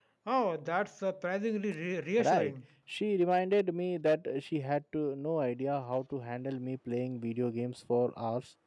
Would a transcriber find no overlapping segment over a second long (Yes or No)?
Yes